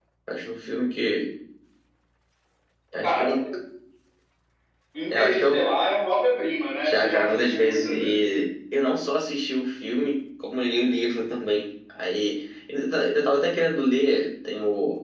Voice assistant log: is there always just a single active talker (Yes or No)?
No